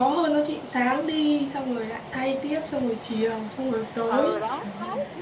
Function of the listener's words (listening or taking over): taking over